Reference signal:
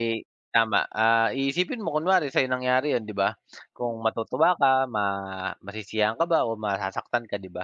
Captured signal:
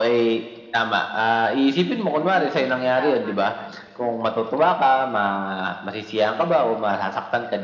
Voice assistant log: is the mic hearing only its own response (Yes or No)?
No